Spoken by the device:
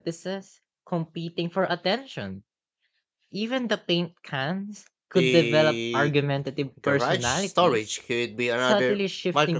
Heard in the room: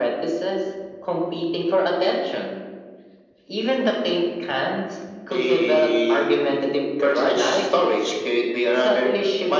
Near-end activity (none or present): none